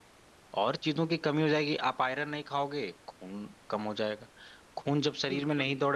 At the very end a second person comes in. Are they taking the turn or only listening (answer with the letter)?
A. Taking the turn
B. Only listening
B